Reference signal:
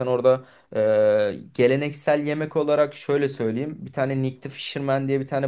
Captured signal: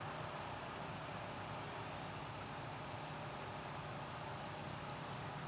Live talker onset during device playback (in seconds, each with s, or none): none